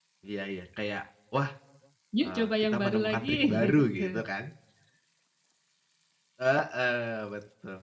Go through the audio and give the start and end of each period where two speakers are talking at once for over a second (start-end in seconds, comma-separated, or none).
2.2-4.2